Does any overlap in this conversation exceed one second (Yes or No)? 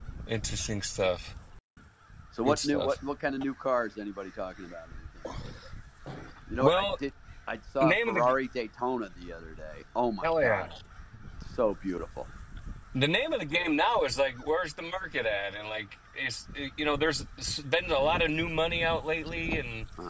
No